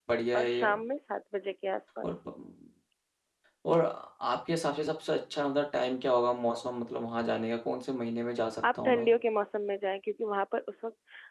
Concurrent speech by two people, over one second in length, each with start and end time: none

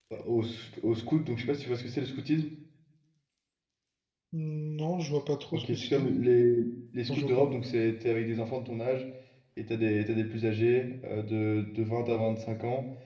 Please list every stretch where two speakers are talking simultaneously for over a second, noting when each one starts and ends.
none

